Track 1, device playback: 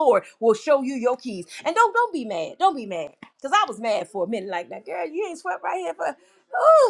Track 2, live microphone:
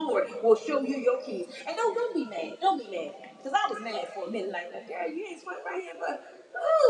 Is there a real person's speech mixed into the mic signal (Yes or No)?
No